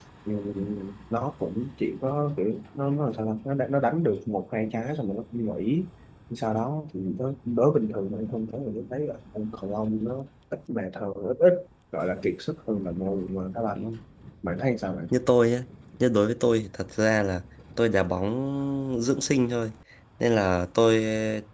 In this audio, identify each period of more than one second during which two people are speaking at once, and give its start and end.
none

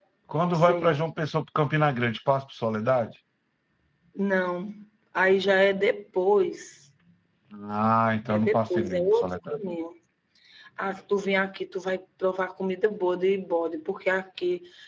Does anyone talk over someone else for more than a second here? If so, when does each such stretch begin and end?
8.3-9.6

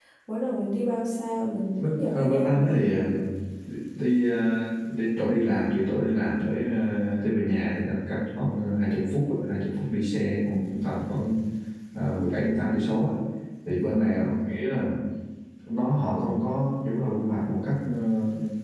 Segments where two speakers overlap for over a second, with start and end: 1.6-2.8

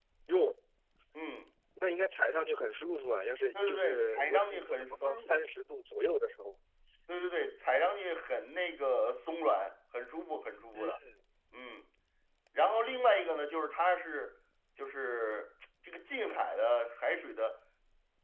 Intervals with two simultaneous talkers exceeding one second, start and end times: 3.5-5.3

